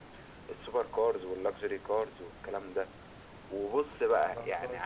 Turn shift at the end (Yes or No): No